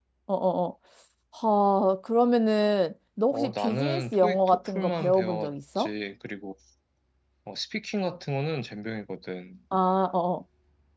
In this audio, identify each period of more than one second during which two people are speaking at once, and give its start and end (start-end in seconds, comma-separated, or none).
3.3-5.9